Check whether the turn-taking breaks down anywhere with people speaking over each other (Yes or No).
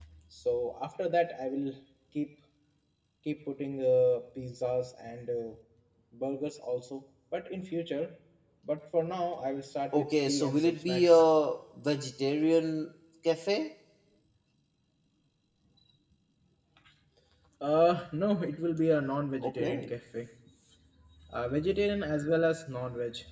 Yes